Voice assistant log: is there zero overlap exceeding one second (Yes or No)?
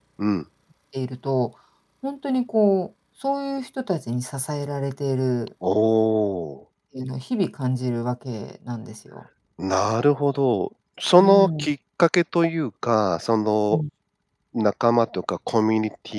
Yes